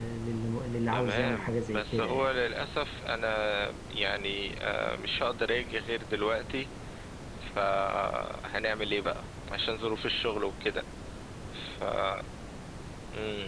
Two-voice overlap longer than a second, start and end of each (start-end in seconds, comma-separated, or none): 0.9-2.3